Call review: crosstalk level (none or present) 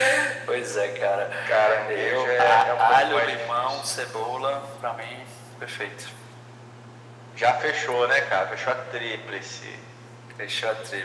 present